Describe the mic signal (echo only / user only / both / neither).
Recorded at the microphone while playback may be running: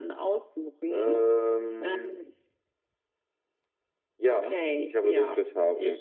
echo only